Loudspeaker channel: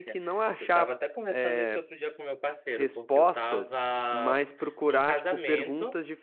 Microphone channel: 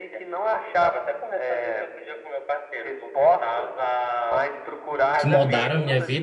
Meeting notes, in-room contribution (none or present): present